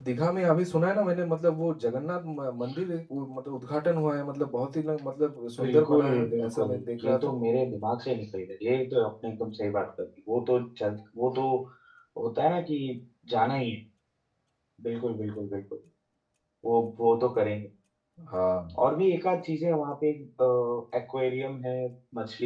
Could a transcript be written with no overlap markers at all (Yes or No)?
No